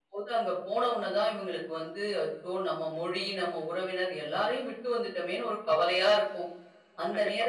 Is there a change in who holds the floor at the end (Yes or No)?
No